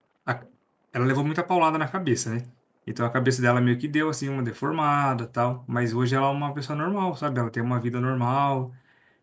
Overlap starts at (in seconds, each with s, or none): none